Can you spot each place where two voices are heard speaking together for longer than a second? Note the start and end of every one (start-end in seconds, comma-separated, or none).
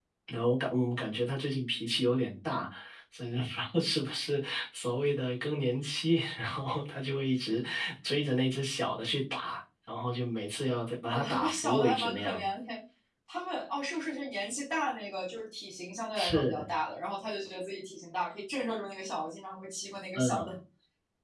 11.1-12.4